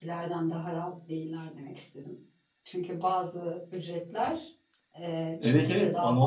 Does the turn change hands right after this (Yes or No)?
Yes